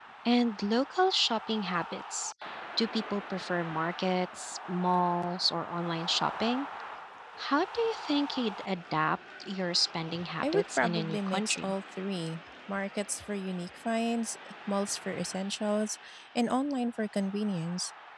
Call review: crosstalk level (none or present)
present